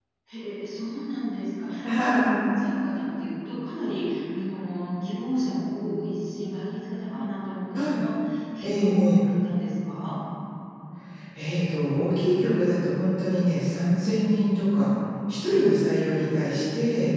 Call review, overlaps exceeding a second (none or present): none